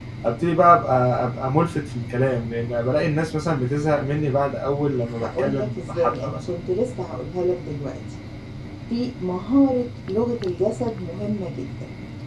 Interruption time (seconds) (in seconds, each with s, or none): 5.2 s